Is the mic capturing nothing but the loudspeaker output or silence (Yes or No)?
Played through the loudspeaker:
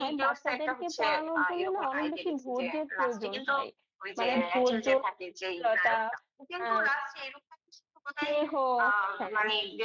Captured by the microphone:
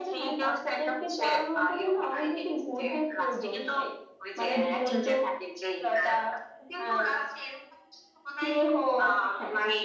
Yes